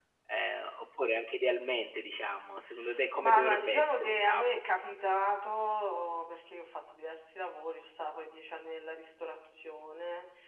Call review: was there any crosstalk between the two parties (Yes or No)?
Yes